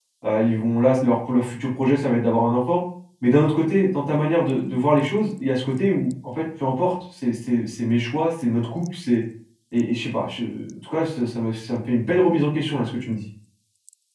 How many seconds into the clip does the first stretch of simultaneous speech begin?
none

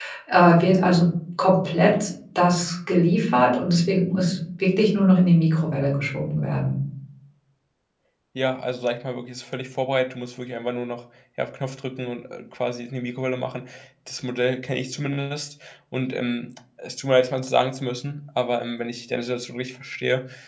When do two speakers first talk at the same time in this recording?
none

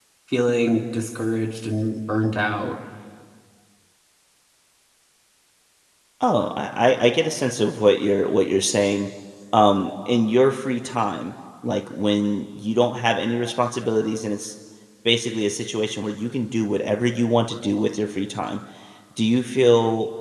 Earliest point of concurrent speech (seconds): none

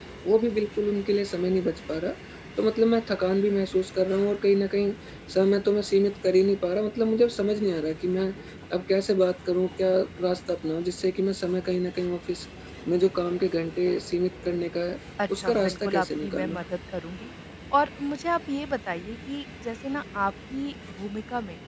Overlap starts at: 15.2 s

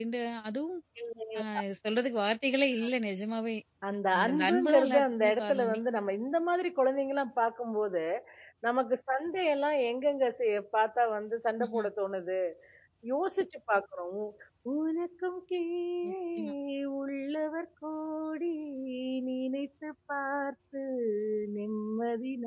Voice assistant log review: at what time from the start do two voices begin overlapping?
4.2 s

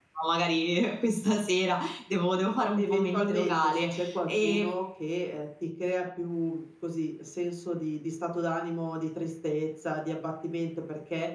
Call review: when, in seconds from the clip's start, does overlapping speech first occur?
2.8 s

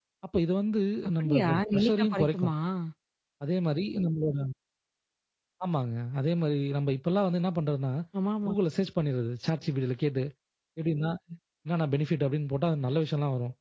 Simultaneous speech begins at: 1.2 s

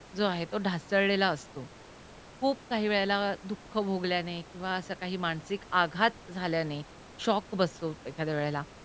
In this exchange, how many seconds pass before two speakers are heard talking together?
none

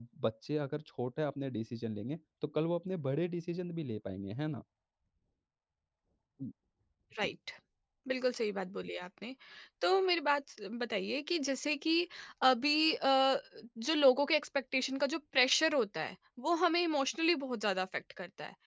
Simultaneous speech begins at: none

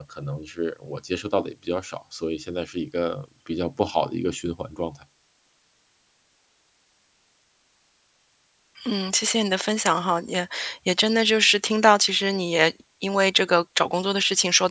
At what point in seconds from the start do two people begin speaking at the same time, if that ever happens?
none

